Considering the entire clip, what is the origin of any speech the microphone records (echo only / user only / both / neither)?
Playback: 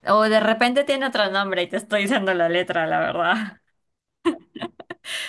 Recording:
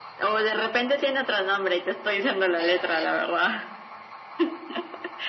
echo only